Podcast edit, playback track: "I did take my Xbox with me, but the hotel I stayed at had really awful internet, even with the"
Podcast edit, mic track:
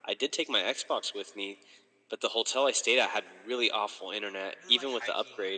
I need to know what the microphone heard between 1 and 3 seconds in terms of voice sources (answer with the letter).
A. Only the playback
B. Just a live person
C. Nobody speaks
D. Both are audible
A